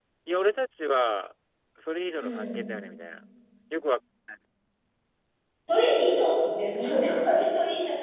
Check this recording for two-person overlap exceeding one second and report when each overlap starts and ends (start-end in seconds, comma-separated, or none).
none